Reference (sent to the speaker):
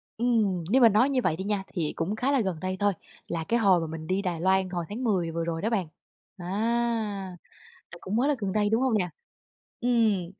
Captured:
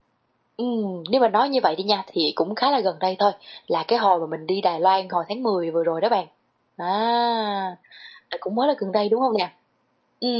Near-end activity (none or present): none